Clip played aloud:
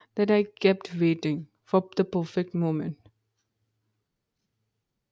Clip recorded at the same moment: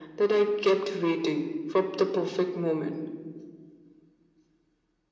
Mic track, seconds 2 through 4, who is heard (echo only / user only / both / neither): echo only